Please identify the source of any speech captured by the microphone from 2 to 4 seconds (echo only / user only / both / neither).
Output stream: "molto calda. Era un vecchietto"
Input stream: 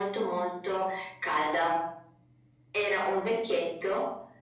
echo only